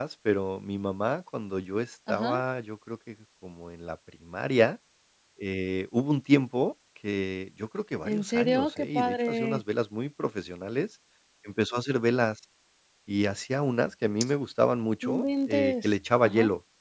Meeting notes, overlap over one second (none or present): present